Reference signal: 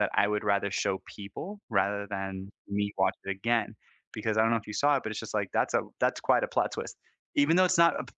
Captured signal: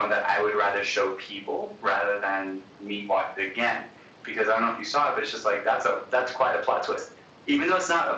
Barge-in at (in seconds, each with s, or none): none